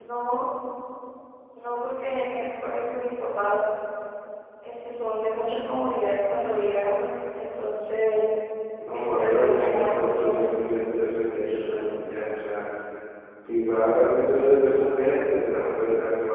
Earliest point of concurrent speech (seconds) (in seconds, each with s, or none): 8.9 s